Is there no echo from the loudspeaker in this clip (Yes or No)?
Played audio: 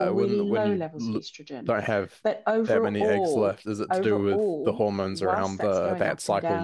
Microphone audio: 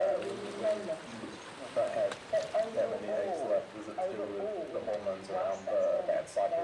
No